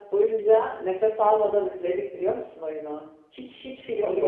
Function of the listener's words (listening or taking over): listening